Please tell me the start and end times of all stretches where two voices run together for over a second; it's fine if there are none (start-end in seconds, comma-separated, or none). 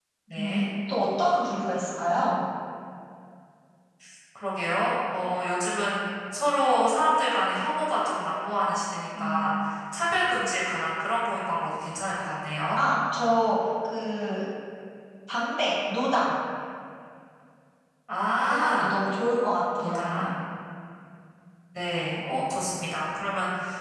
none